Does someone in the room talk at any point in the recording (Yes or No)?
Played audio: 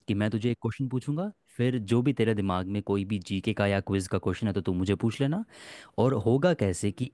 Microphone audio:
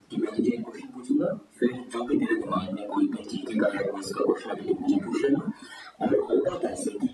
No